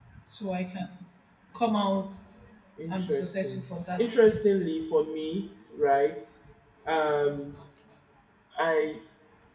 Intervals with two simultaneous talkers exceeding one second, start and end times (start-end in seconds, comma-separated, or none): 2.9-4.3